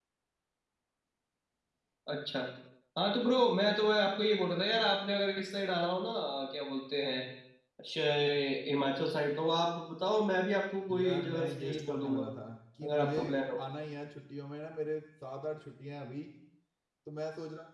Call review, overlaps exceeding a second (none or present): present